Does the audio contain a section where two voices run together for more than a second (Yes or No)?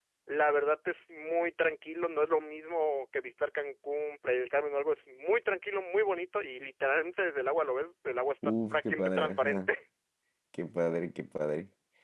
Yes